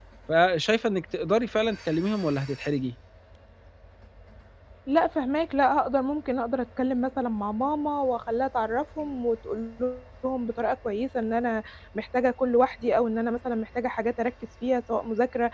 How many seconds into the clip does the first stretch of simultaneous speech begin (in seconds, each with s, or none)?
none